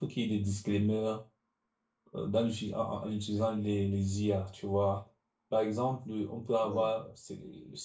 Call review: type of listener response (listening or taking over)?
listening